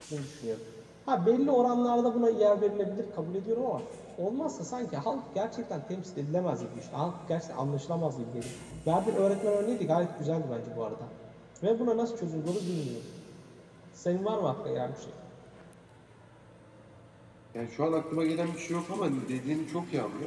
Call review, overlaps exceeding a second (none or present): none